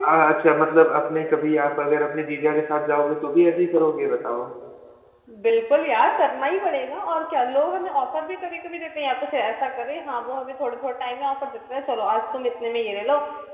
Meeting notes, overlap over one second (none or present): none